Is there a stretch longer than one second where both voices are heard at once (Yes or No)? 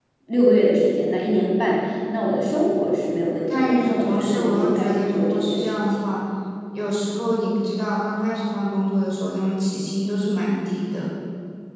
Yes